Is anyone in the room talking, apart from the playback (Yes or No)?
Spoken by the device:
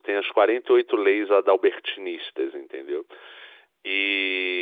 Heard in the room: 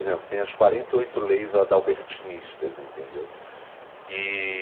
No